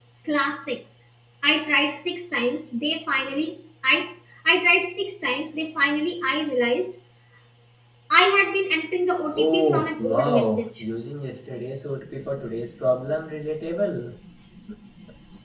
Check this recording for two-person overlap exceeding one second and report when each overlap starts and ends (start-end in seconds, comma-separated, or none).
9.3-10.8